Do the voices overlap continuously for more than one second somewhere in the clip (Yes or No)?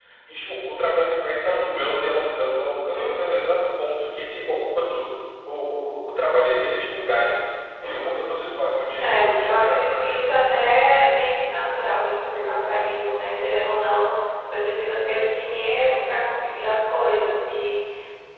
Yes